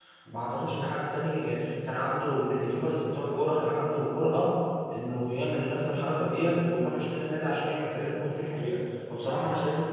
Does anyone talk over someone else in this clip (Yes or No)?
No